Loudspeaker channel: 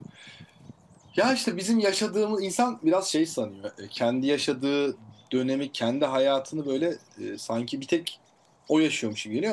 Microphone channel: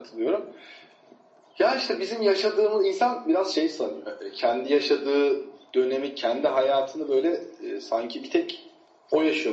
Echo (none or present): present